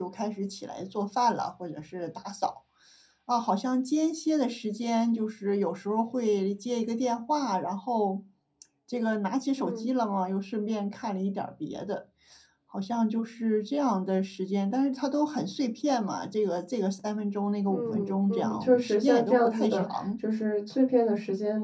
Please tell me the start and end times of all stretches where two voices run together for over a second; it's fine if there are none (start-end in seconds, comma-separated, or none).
17.7-20.0